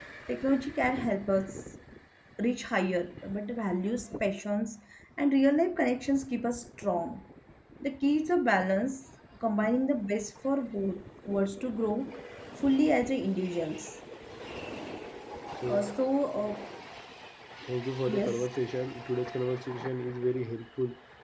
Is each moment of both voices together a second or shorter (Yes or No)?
Yes